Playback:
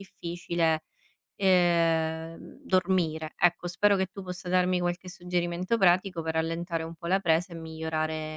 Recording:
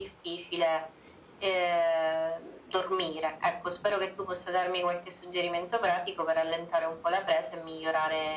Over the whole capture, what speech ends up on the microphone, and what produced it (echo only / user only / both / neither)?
echo only